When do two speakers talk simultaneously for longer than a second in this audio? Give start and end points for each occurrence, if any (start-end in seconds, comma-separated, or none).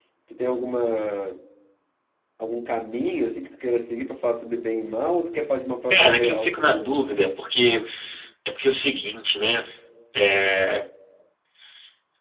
5.9-7.3